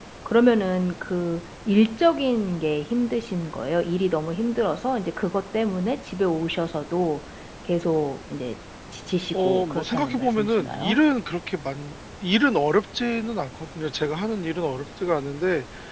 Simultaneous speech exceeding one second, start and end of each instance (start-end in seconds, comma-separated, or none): 9.3-11.0